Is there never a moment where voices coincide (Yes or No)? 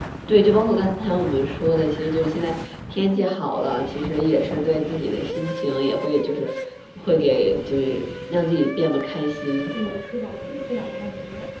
Yes